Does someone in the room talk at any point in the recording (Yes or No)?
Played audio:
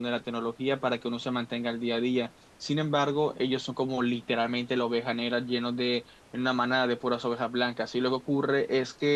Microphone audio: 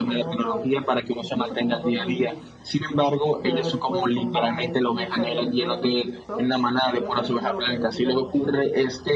Yes